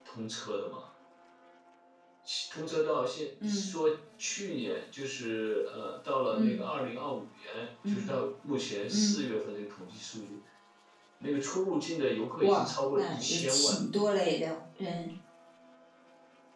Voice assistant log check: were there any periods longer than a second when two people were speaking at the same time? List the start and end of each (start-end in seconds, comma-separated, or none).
12.4-13.8